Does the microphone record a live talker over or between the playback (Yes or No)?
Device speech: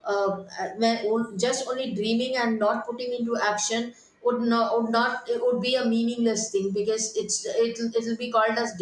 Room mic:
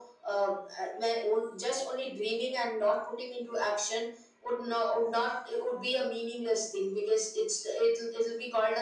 No